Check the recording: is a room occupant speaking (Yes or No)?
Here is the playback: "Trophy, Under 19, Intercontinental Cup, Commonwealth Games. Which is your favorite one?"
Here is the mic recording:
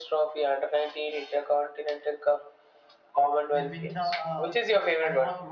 Yes